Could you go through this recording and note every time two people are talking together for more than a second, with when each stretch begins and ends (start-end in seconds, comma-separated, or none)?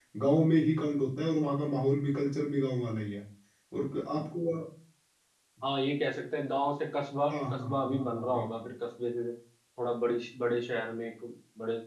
7.3-8.7